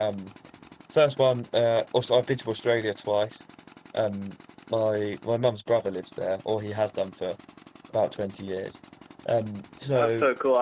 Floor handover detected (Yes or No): Yes